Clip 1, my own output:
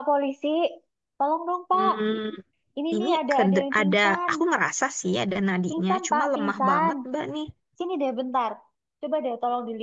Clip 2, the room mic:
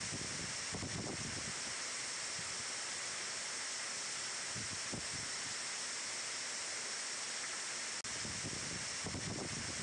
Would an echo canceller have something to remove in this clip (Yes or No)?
No